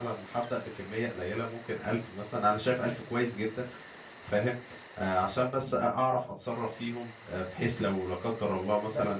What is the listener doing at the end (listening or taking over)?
listening